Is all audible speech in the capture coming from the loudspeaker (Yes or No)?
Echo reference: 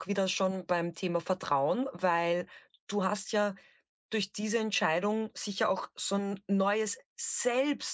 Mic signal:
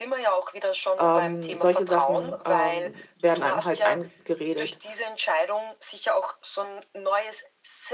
No